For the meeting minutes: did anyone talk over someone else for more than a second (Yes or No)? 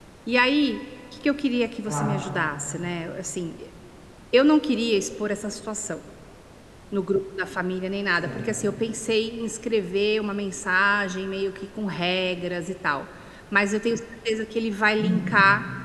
No